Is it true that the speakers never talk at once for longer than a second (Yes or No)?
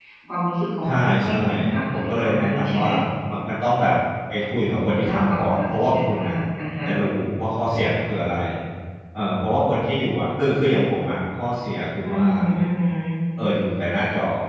No